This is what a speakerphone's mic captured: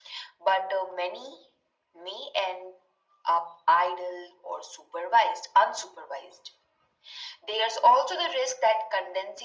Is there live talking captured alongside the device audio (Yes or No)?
No